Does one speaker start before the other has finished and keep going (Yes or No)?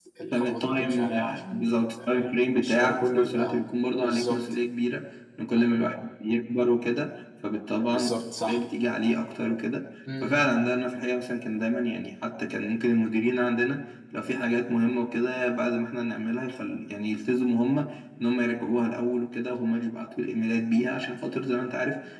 Yes